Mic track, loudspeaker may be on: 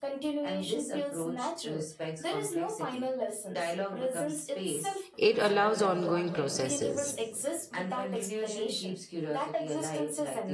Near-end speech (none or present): present